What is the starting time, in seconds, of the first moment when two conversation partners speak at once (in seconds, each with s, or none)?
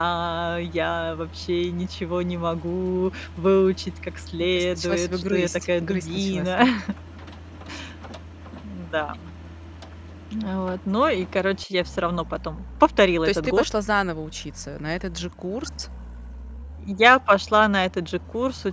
4.5 s